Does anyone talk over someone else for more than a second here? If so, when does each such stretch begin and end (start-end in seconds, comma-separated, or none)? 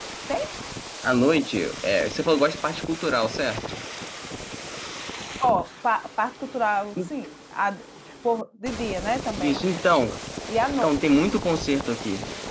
none